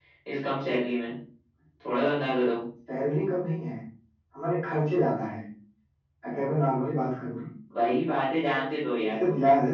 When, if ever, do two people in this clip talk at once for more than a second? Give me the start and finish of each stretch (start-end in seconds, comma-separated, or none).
none